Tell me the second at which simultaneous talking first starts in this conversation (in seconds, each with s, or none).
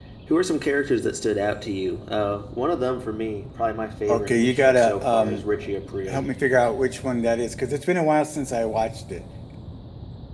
4.1 s